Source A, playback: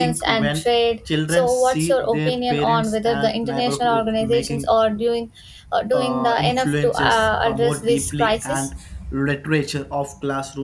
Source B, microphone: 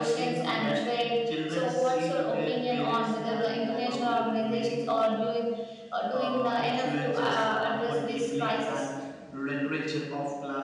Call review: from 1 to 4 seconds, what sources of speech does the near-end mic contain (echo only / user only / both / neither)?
echo only